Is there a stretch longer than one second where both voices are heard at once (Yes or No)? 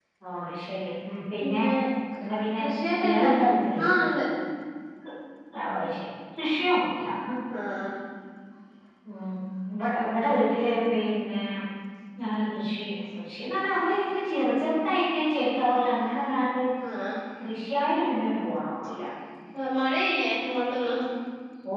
No